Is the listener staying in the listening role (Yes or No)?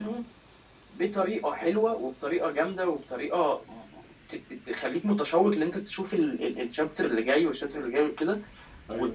Yes